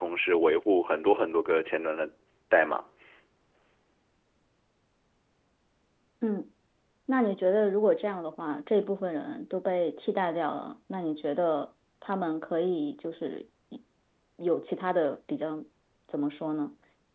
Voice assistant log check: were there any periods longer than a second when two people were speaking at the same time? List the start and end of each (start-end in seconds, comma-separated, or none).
none